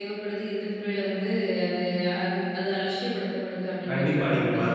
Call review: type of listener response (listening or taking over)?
taking over